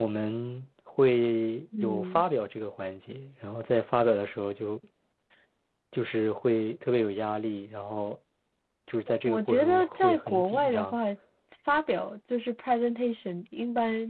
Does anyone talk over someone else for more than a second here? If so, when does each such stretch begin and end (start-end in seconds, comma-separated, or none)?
9.2-11.0